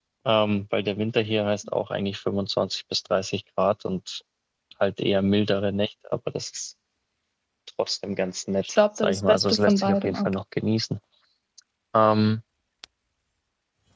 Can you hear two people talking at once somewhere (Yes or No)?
Yes